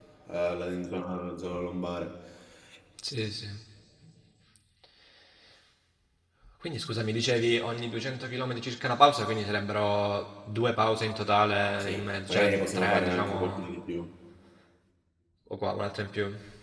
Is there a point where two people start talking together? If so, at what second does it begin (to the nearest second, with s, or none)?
12 s